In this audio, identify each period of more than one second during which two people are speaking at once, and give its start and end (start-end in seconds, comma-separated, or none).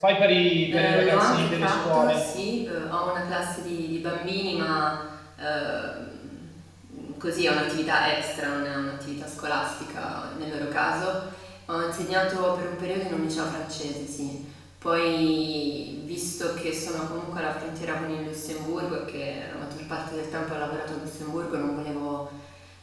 0.7-2.2